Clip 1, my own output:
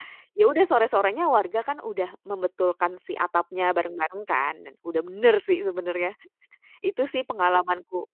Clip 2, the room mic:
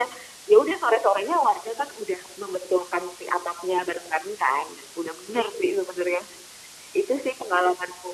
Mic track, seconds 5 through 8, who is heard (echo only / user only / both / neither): echo only